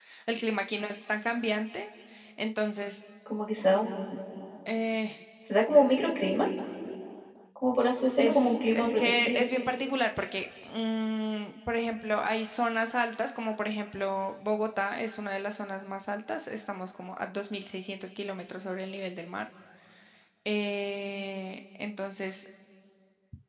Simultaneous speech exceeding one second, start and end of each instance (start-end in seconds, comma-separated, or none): 8.2-9.4